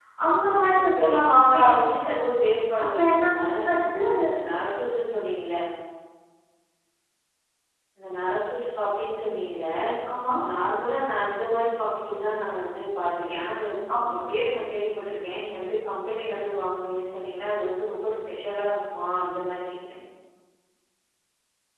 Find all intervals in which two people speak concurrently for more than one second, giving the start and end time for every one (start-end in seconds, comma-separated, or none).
0.8-2.1